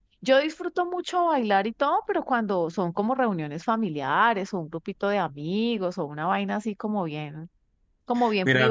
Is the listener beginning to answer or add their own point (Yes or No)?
Yes